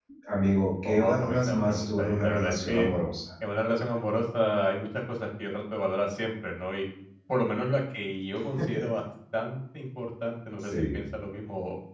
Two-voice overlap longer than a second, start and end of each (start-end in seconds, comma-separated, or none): 0.8-2.9